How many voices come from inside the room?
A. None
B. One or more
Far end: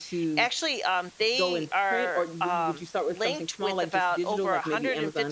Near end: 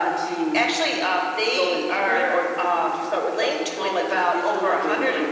A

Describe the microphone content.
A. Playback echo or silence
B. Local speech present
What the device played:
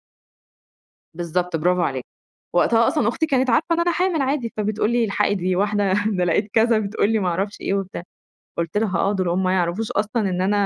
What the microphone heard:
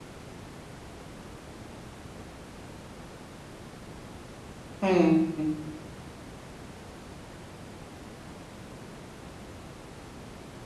B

